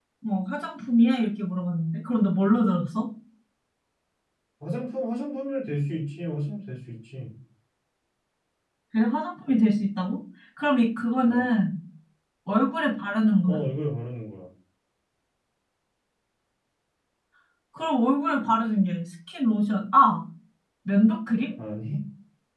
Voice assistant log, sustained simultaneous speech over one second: none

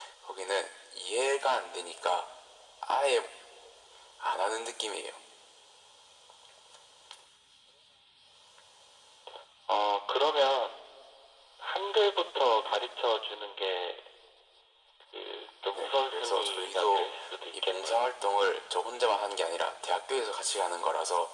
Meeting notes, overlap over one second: present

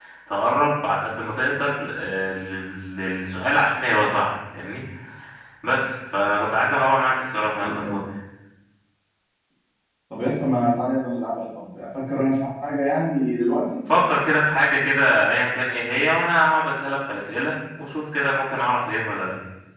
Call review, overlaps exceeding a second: none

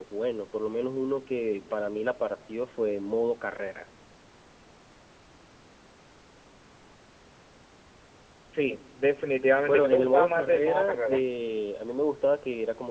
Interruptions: present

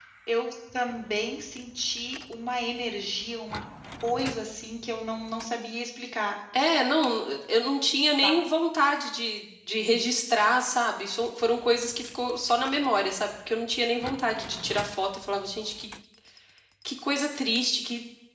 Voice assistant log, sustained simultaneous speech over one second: none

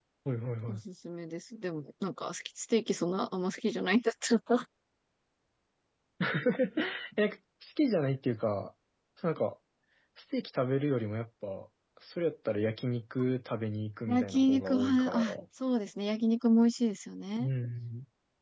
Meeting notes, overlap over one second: present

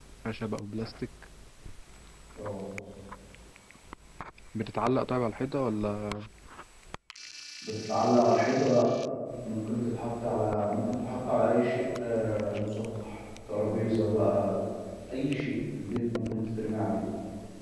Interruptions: none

